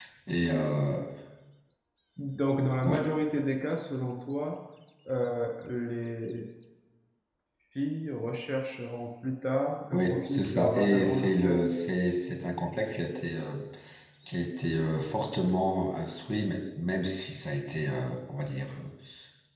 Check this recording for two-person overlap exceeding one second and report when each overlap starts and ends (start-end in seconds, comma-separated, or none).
9.9-11.6